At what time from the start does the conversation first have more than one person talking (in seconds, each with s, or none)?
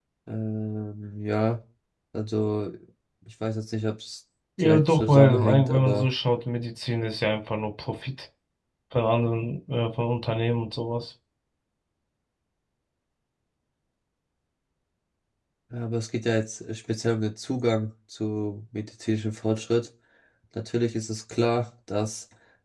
4.6 s